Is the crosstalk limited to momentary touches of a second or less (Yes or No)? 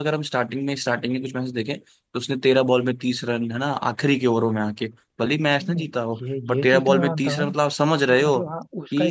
No